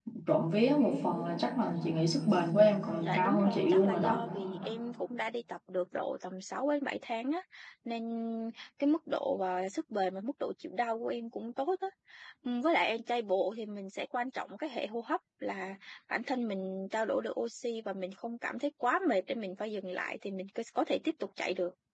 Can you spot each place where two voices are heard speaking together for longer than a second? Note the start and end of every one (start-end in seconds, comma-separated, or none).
3.0-4.2